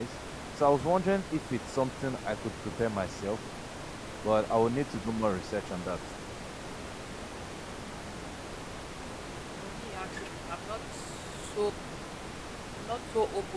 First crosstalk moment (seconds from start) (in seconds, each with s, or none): none